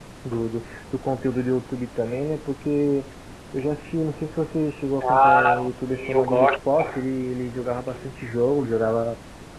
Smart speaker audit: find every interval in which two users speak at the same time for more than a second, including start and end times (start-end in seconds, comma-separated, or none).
5.0-7.0